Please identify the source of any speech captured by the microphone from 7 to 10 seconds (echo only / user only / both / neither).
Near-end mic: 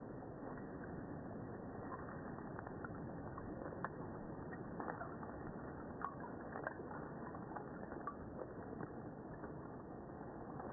neither